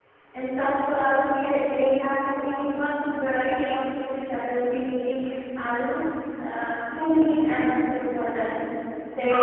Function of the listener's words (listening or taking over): taking over